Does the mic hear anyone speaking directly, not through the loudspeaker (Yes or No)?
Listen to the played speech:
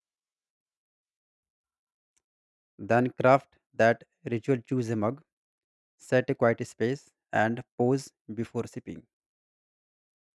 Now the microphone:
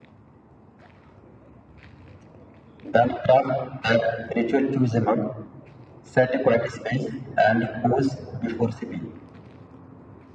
No